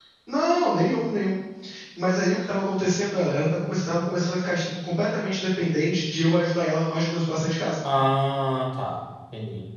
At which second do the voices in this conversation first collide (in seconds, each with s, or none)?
none